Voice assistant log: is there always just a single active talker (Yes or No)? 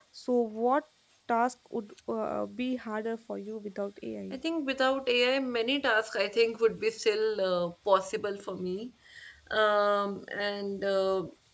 Yes